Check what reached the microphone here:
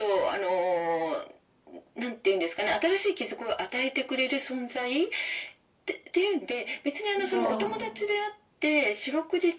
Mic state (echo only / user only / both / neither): both